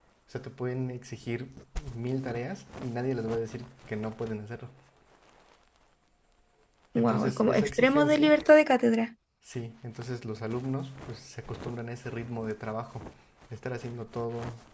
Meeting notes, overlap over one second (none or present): present